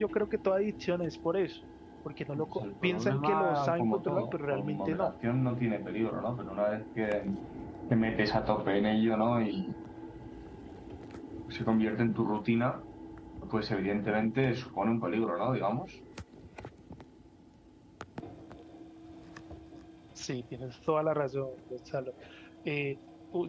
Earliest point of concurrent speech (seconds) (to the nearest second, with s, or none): 2 s